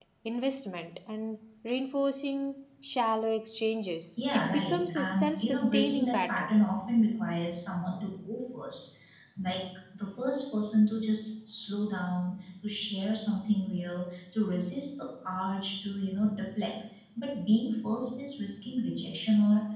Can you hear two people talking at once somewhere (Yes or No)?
Yes